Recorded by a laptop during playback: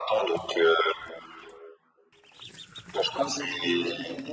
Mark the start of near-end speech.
3.0 s

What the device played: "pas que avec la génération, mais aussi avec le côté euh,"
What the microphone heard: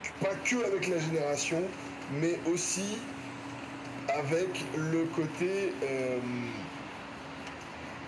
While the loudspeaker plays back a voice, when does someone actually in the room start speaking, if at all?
none

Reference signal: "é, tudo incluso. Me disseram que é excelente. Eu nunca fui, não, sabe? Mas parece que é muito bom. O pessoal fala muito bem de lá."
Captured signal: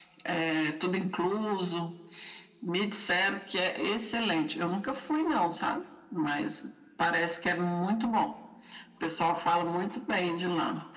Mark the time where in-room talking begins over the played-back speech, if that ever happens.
none

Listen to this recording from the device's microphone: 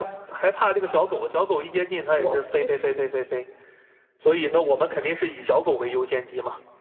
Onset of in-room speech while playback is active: 2.1 s

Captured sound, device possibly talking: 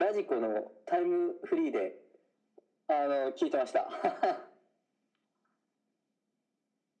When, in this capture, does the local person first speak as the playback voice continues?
none

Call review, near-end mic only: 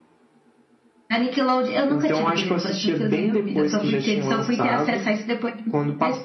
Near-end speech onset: none

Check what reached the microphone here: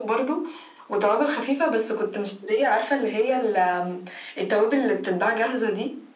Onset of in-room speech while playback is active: none

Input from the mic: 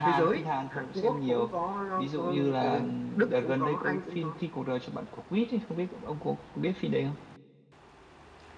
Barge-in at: none

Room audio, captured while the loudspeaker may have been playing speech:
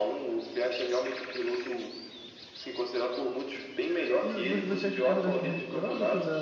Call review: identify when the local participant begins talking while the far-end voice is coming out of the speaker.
4.2 s

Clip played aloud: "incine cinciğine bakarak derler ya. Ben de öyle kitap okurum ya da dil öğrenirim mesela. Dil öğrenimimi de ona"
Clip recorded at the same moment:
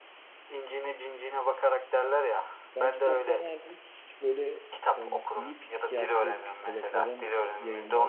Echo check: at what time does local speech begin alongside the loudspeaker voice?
2.7 s

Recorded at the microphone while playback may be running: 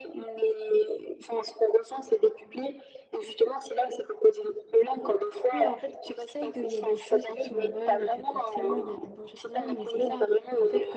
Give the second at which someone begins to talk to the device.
5.5 s

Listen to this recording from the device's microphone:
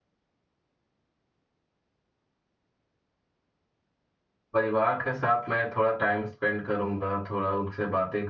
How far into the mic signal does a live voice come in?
4.5 s

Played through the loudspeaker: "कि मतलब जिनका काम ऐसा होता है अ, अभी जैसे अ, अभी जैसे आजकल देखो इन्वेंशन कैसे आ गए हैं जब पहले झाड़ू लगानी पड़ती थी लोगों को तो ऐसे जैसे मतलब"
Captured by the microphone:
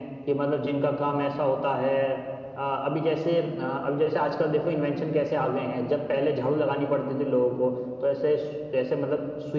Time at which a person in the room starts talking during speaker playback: none

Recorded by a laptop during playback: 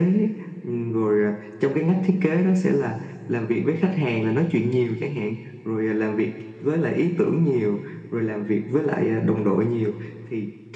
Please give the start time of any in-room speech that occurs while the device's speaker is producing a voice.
none

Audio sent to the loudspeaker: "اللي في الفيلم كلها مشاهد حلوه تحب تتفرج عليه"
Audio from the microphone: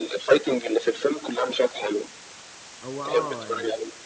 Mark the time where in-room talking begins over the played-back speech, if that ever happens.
2.8 s

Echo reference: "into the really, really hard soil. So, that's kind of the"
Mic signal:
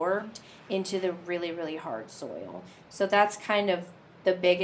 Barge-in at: none

